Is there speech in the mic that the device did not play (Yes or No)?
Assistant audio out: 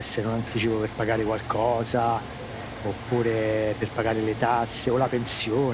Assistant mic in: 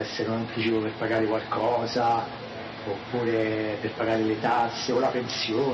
No